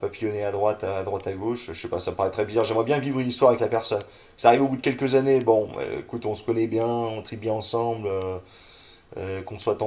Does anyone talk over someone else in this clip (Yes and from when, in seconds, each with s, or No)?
No